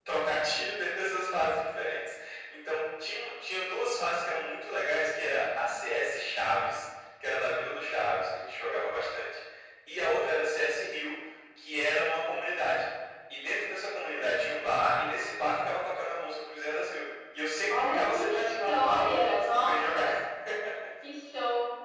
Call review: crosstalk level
present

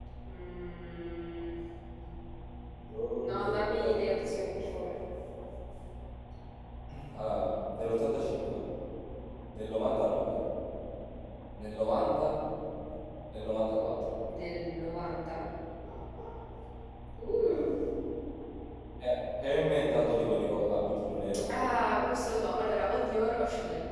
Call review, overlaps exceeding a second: present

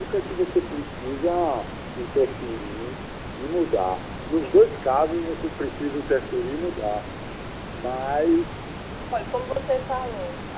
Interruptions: none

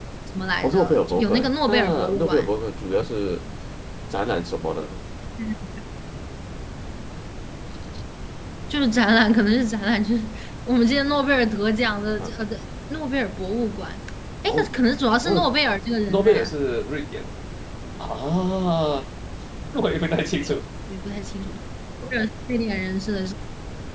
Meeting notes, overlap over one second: present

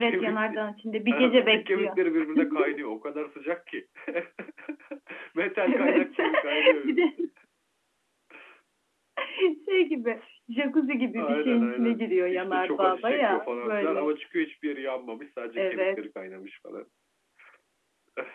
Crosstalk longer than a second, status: present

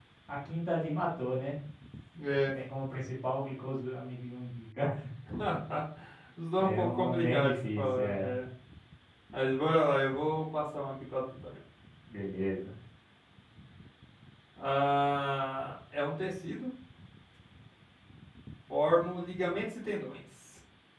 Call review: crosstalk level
present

